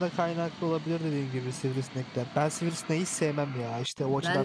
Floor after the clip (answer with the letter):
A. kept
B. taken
B